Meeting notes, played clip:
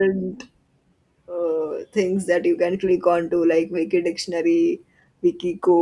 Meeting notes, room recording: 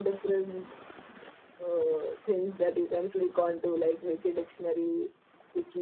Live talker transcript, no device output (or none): none